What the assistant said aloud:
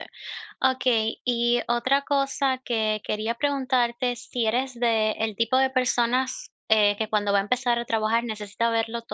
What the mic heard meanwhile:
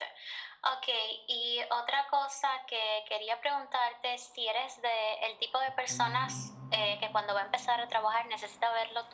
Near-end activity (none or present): present